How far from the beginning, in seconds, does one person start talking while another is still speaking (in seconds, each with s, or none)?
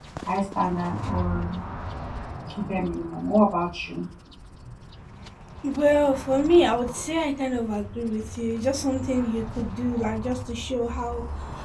none